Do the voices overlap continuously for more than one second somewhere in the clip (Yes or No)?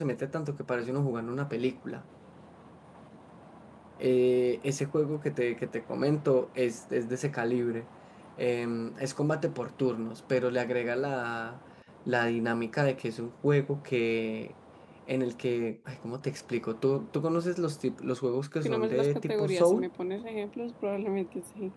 Yes